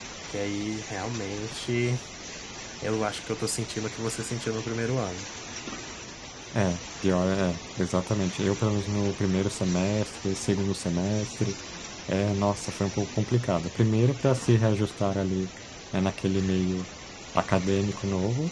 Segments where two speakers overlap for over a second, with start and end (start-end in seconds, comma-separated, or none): none